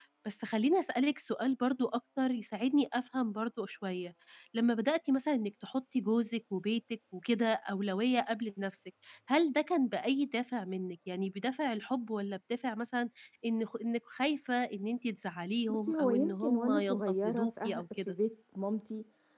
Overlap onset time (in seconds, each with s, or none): 15.7 s